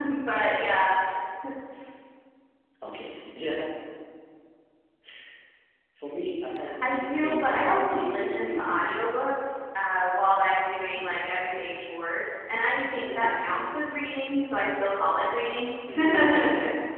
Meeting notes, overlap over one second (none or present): present